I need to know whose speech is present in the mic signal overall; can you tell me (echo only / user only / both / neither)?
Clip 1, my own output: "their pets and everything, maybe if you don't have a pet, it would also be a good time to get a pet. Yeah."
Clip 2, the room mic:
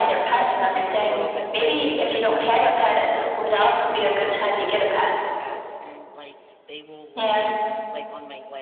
both